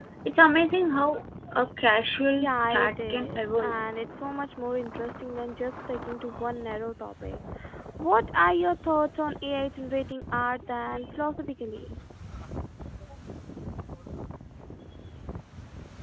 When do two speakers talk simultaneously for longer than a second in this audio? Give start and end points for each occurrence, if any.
2.4-3.7

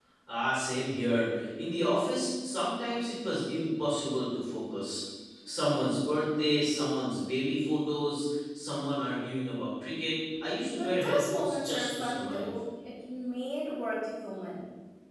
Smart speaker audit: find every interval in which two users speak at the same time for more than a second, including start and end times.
10.8-12.5

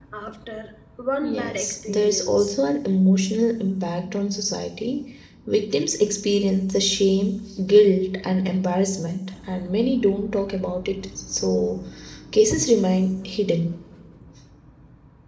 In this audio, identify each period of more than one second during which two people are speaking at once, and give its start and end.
1.2-2.4

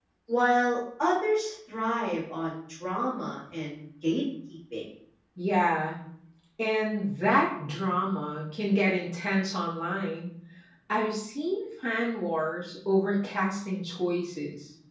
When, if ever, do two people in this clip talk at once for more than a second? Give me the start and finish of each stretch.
none

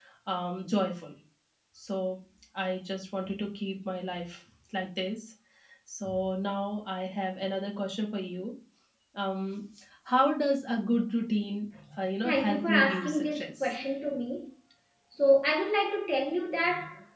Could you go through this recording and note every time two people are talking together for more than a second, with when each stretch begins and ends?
12.2-13.6

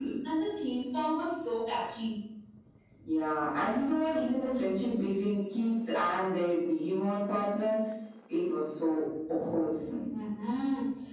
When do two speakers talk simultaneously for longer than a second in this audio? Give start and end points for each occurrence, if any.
none

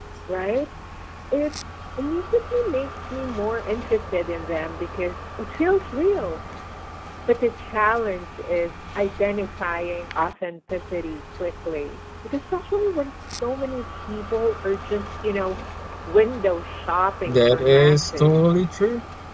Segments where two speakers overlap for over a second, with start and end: 17.3-18.5

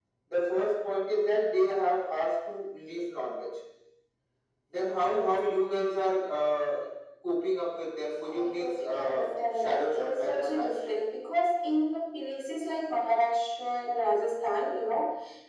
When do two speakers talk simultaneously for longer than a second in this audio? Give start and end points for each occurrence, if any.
8.3-10.7

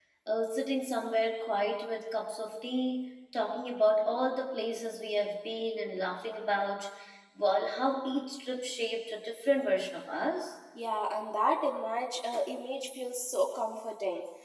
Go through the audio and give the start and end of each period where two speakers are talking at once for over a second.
none

